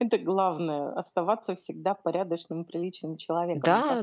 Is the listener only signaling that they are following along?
No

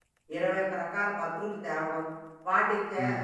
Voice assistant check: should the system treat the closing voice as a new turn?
No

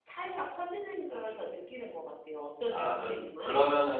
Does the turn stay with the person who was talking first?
No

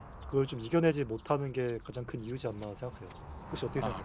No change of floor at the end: No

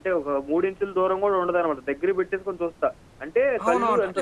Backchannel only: No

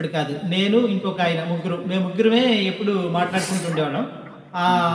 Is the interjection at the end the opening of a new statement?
No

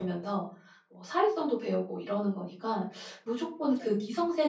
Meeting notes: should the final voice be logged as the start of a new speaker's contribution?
No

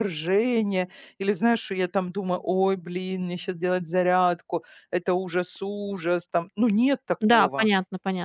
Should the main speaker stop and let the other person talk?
Yes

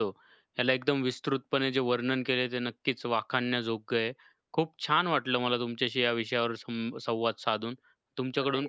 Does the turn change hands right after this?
No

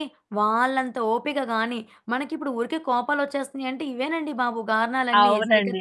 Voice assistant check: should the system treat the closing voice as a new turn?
Yes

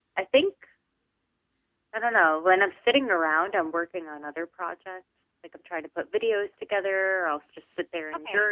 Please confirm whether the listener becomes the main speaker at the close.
No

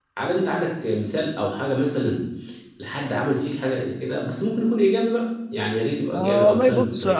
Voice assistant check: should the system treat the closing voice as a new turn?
Yes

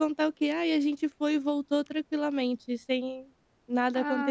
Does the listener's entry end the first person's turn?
Yes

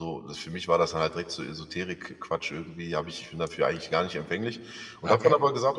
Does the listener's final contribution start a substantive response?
No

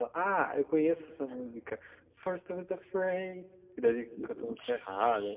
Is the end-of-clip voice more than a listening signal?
Yes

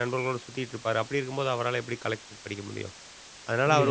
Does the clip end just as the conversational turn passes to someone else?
No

